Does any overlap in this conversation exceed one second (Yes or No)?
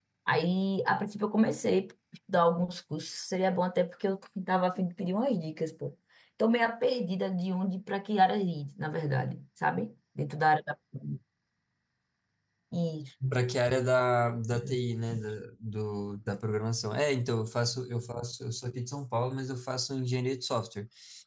No